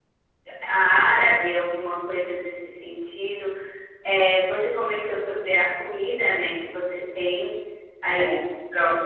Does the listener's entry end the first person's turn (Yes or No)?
No